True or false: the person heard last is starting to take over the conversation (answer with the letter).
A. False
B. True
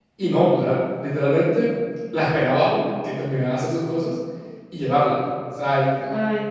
B